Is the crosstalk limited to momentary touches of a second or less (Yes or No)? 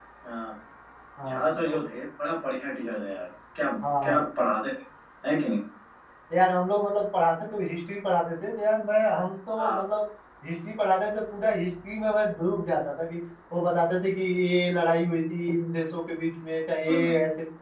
Yes